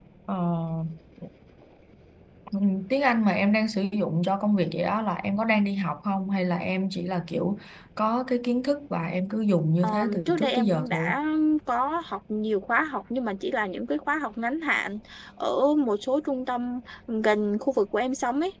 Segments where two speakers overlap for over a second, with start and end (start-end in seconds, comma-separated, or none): 9.8-11.1